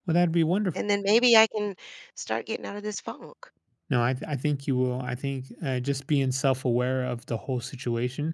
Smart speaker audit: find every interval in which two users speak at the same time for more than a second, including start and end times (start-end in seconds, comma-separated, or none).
none